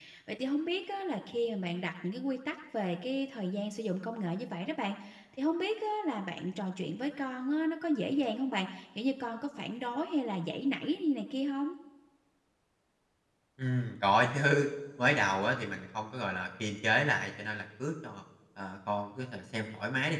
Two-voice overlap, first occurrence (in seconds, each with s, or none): none